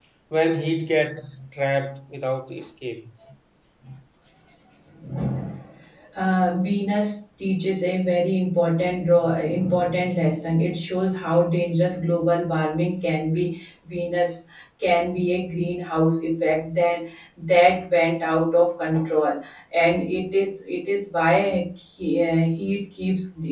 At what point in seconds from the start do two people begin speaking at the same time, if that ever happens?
none

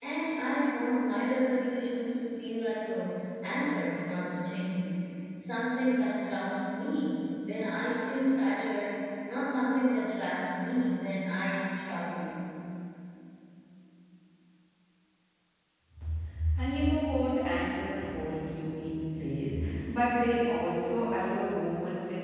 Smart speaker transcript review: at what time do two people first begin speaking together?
none

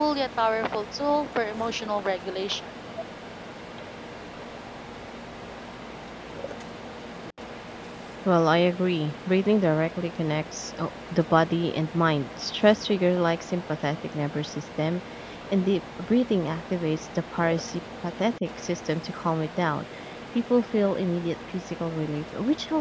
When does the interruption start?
none

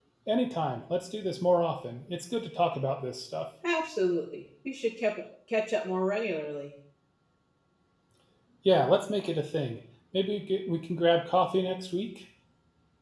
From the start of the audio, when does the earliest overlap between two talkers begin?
none

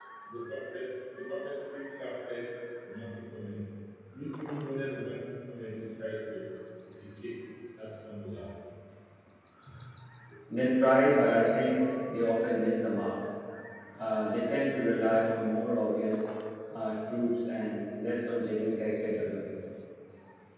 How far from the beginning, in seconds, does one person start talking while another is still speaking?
none

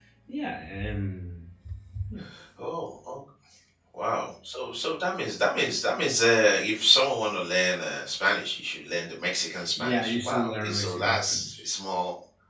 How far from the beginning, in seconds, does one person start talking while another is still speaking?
9.5 s

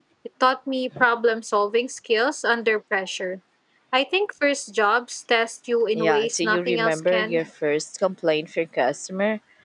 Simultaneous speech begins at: 5.9 s

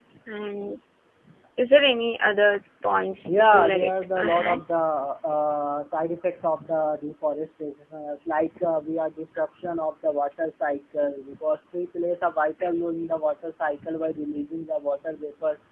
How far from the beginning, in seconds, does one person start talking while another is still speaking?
3.3 s

